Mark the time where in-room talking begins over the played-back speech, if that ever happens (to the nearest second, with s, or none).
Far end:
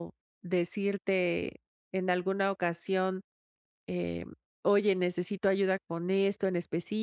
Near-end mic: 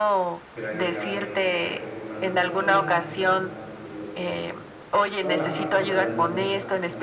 1 s